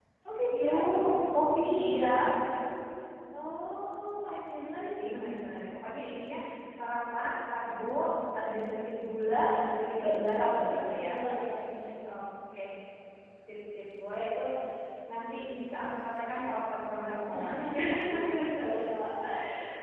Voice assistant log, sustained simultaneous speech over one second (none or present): present